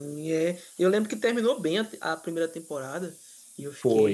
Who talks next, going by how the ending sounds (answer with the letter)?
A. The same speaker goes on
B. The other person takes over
A